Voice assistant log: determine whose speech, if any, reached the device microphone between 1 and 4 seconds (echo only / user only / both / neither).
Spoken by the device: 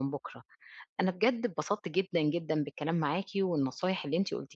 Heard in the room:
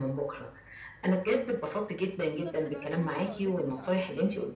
both